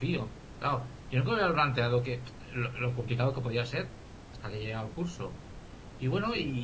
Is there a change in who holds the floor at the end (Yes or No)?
No